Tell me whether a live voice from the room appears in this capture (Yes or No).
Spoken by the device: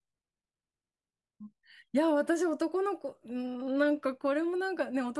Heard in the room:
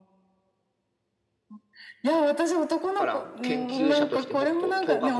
Yes